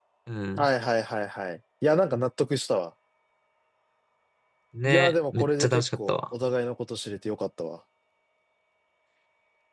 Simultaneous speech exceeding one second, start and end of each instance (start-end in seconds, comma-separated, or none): 4.8-6.2